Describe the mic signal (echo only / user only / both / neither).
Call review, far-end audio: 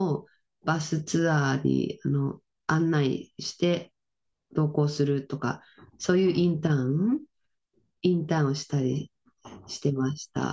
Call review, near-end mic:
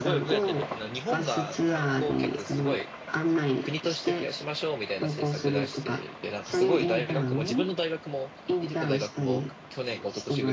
both